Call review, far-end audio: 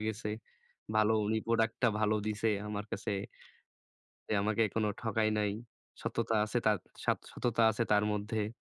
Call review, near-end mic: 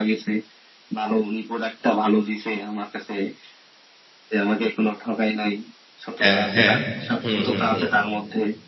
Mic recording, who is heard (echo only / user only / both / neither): both